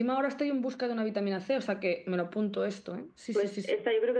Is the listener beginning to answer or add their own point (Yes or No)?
Yes